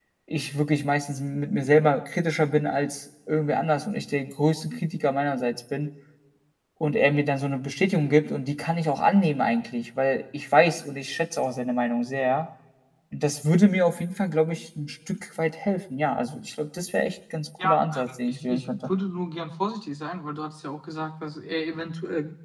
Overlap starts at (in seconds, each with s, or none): 17.6 s